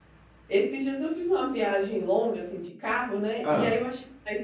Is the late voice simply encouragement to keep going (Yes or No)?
Yes